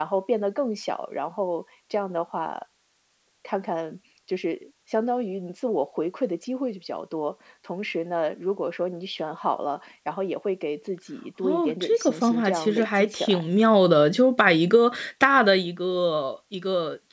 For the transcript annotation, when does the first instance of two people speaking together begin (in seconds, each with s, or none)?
11.4 s